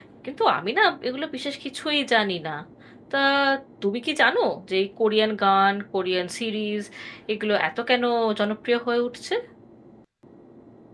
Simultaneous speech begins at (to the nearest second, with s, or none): none